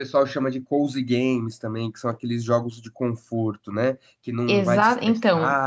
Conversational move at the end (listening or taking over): taking over